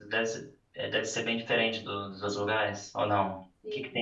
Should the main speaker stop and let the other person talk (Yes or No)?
Yes